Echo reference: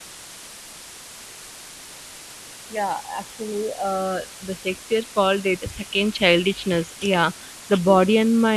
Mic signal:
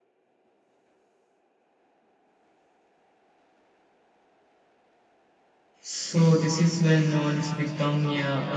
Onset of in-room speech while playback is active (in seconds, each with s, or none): 5.8 s